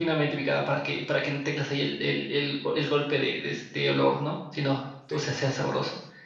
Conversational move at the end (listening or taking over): listening